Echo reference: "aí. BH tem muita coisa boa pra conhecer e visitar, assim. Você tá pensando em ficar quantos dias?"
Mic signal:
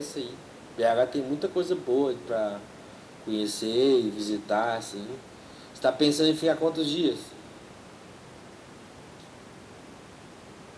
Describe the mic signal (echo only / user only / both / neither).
echo only